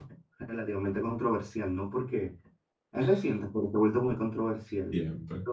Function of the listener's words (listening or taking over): taking over